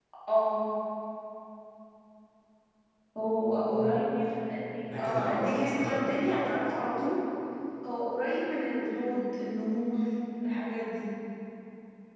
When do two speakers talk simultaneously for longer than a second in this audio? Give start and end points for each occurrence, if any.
4.9-6.1

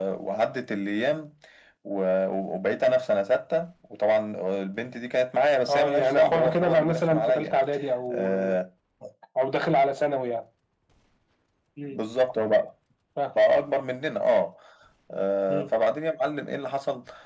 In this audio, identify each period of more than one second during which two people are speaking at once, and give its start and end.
5.7-7.5

